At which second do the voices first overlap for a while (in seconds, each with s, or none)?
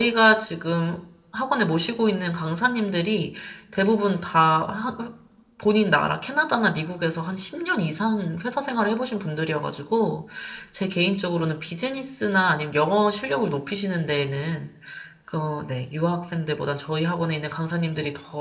none